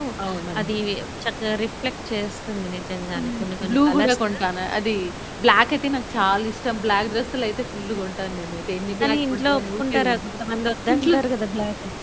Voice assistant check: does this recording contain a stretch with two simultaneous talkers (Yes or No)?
Yes